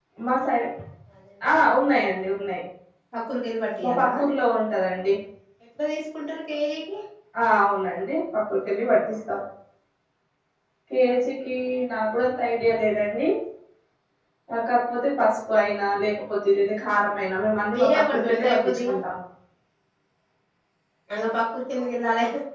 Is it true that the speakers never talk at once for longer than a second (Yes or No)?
No